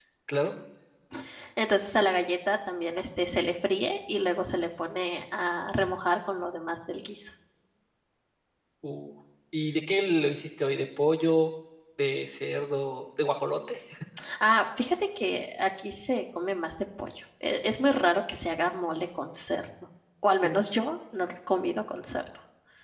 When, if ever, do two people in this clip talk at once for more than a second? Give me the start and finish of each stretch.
none

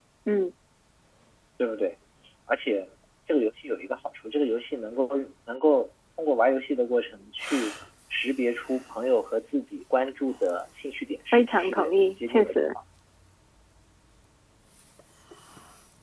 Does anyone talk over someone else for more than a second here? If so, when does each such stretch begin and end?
11.3-12.6

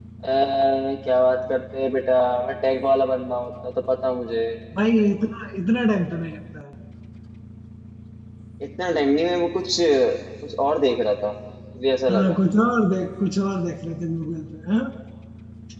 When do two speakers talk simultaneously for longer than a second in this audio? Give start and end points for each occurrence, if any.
none

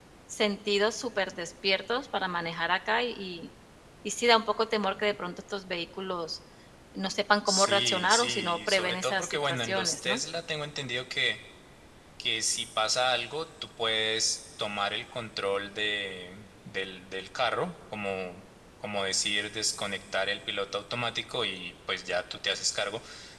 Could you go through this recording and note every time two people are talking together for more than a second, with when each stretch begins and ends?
7.5-10.2

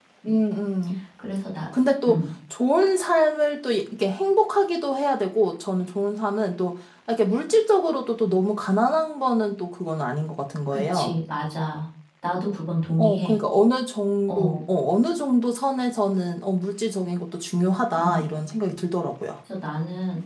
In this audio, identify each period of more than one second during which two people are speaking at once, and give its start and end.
none

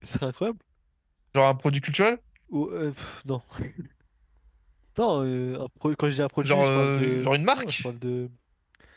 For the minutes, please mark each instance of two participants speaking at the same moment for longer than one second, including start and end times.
6.4-7.8

